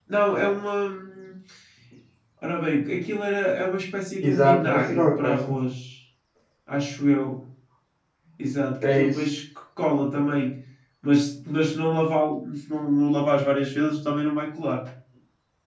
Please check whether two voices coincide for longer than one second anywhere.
Yes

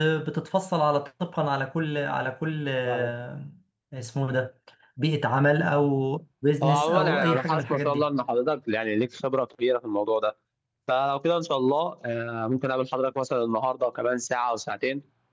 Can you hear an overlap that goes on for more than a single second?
Yes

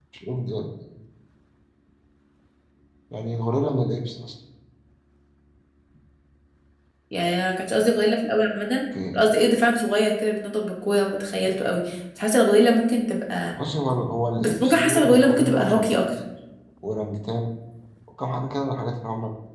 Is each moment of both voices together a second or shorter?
No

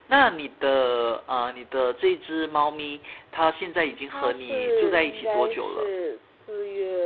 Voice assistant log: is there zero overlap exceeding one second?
No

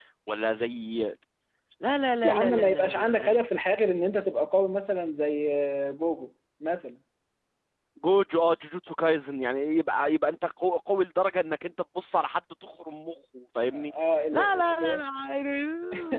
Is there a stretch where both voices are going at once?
Yes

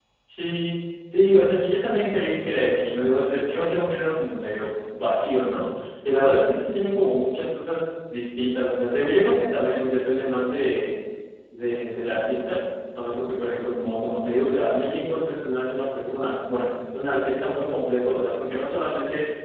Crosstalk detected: No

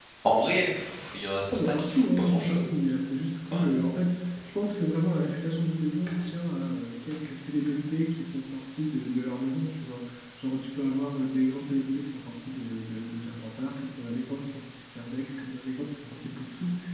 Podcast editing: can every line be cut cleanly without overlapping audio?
No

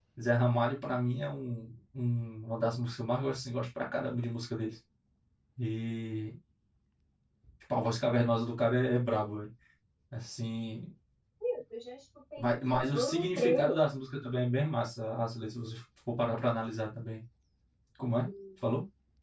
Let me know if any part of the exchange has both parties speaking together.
Yes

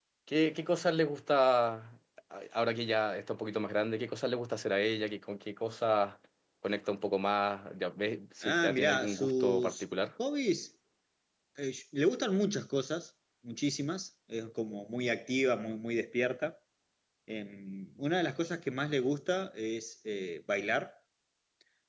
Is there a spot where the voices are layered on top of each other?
Yes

